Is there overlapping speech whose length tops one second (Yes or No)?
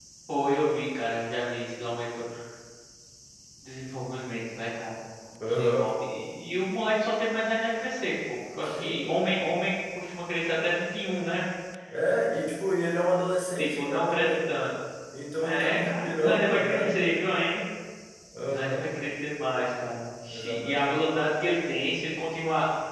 Yes